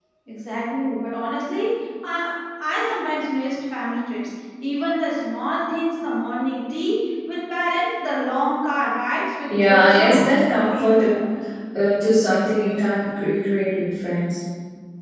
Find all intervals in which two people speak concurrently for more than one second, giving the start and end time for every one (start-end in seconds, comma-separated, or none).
9.5-11.1